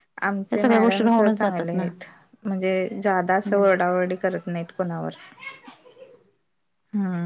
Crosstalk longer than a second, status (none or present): present